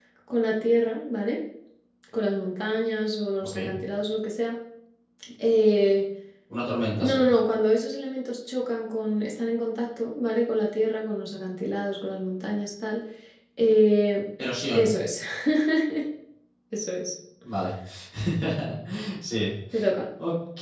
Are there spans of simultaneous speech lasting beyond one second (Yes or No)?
No